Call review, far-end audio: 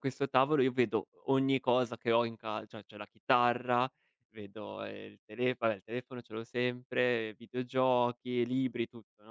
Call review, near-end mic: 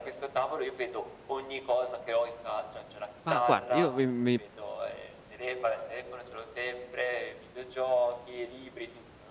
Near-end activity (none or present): present